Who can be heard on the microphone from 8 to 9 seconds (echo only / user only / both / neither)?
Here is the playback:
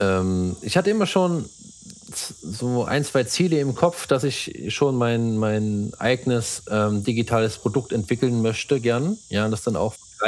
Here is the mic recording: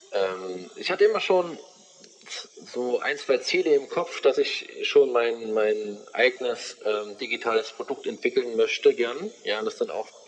echo only